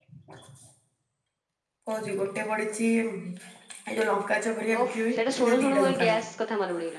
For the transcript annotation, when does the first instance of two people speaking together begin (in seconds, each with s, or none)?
4.7 s